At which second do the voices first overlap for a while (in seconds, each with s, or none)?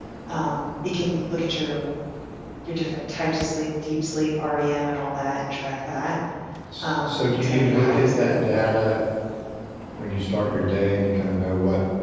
6.8 s